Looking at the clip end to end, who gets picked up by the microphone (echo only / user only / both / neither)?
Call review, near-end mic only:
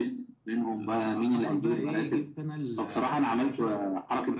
both